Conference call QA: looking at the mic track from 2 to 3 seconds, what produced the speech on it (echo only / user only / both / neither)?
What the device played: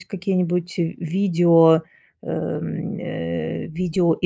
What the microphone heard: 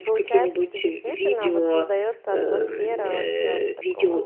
both